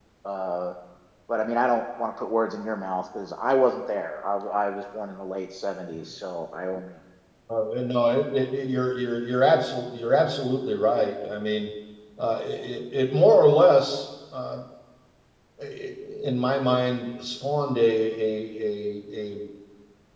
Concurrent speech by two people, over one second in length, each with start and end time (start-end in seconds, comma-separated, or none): none